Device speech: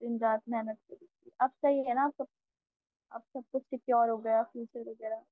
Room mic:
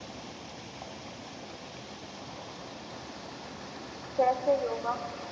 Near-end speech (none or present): present